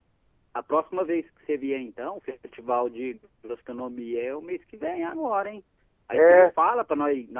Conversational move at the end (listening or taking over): listening